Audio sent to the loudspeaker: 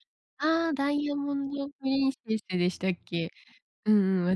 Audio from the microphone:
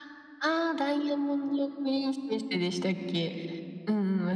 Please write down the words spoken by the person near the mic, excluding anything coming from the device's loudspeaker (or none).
none